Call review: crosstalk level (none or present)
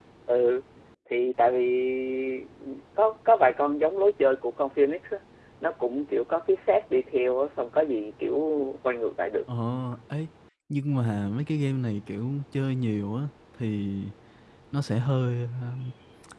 none